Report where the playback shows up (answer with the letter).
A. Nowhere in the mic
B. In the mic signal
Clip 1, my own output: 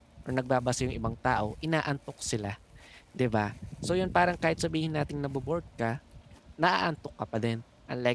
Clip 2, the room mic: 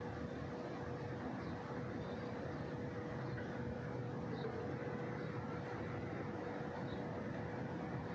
A